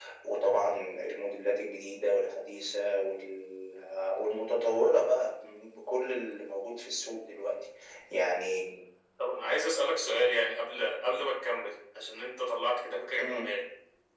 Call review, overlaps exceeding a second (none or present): none